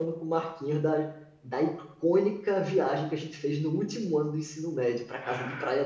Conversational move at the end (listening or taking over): taking over